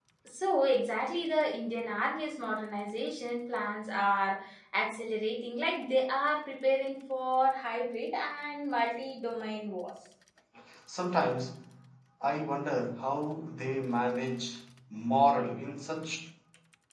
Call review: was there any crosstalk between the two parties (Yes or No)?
No